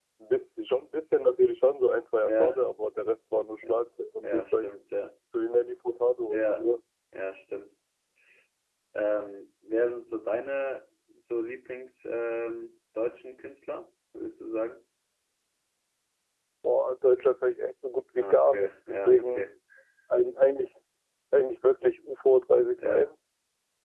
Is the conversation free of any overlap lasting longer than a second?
No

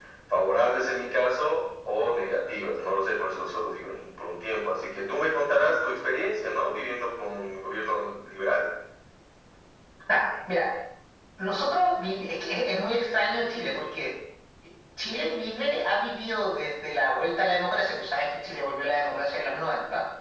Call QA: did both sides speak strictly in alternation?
Yes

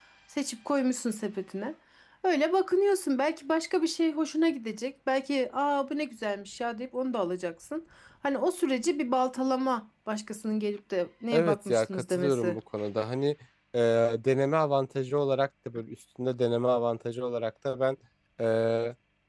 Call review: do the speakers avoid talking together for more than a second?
No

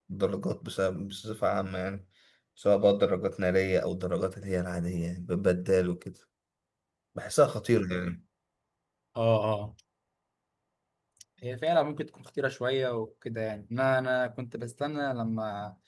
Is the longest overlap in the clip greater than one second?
No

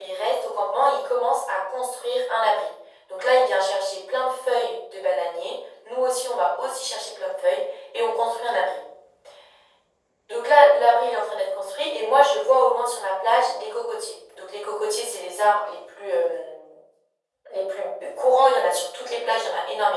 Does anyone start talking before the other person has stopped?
No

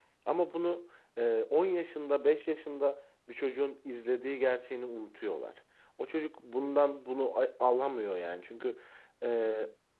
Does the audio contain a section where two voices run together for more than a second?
No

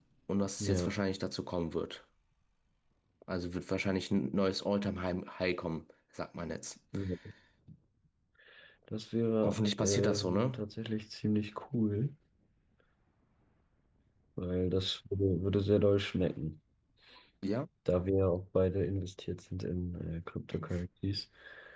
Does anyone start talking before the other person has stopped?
Yes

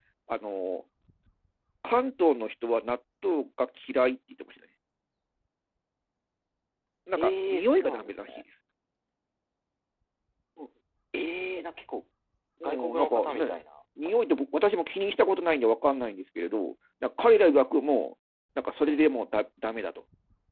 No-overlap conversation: No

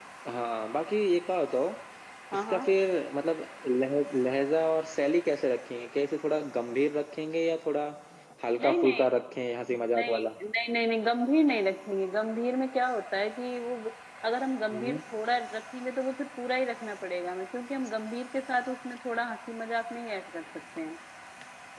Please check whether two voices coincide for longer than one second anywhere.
No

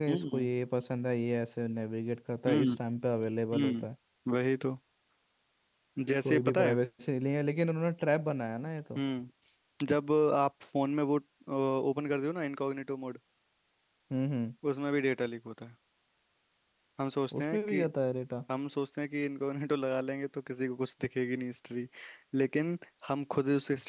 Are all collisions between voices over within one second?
Yes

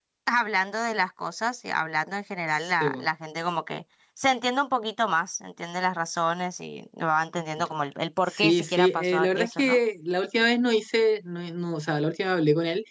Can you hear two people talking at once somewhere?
Yes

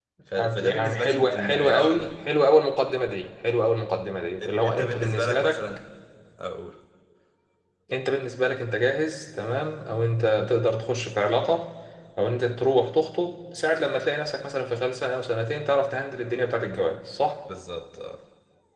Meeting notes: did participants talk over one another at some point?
Yes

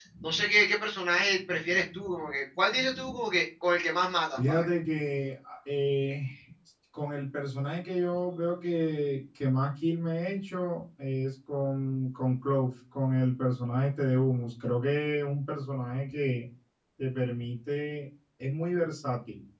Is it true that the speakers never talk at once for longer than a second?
Yes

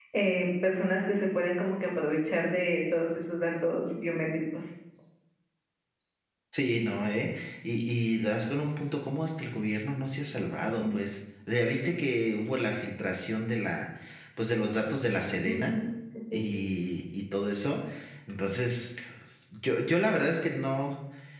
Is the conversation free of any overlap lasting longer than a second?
Yes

